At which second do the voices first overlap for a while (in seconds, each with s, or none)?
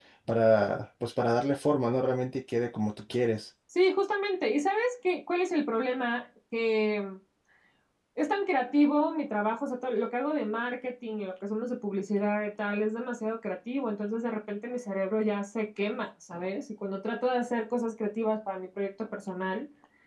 none